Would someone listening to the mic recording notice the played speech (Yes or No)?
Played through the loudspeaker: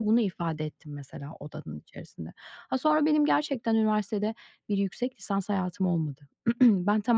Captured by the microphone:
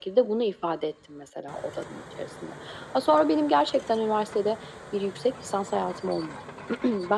Yes